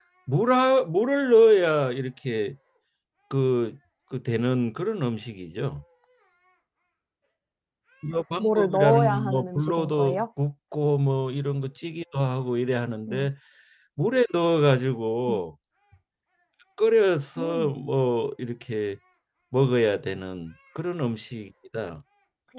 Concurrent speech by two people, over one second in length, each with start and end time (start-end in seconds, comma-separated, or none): 8.4-10.2